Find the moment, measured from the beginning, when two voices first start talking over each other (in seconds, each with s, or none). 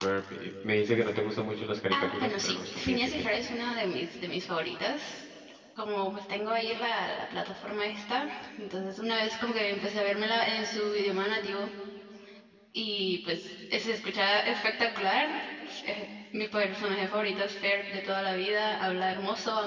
1.9 s